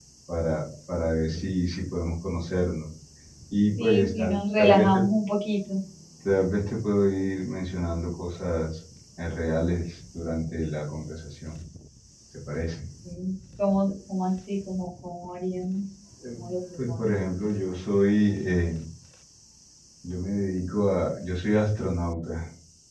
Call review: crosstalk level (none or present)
present